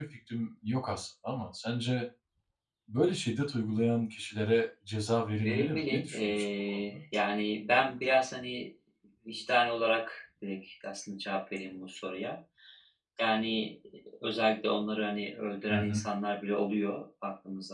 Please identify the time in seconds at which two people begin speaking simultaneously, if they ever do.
5.4 s

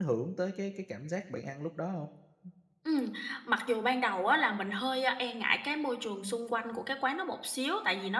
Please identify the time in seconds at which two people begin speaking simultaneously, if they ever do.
none

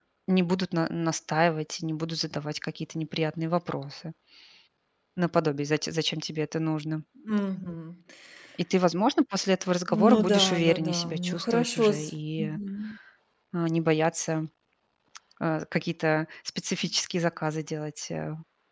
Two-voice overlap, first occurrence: 9.9 s

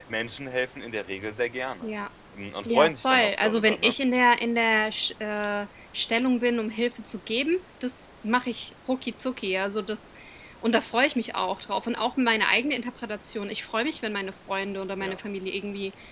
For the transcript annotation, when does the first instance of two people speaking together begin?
2.6 s

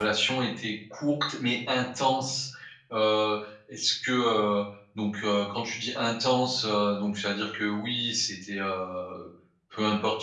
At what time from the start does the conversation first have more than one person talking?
none

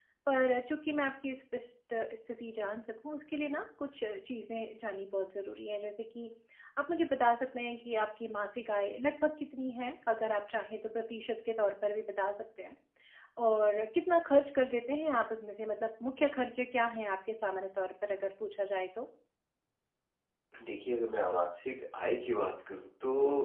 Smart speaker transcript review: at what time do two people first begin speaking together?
none

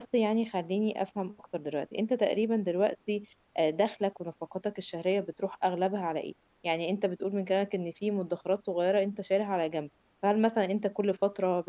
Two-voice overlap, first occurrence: none

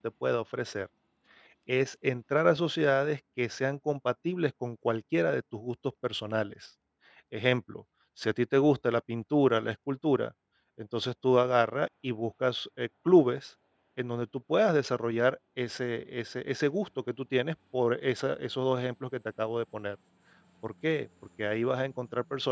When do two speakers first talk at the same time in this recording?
none

